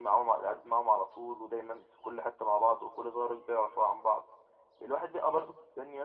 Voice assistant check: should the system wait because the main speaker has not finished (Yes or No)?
Yes